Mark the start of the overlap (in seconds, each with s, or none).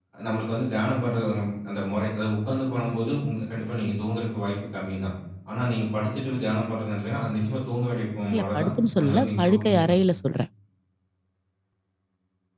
8.3 s